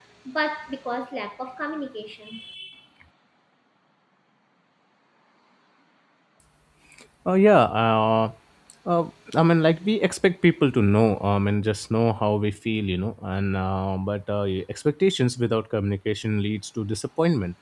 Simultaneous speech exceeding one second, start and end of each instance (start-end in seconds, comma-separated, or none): none